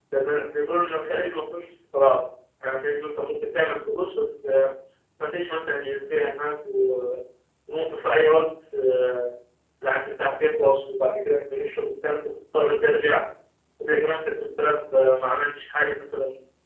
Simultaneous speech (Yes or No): No